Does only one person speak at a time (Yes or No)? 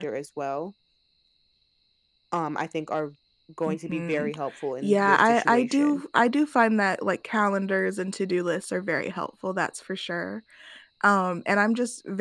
No